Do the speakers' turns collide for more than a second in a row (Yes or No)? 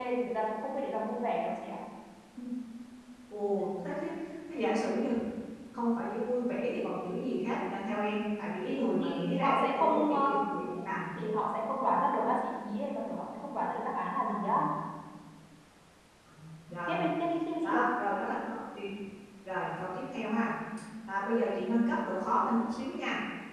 Yes